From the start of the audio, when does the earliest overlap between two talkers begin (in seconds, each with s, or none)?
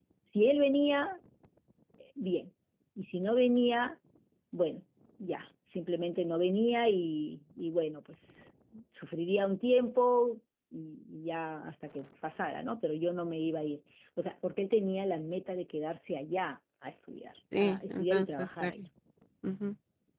17.5 s